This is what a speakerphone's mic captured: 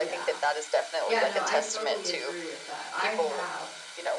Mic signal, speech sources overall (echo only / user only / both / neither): both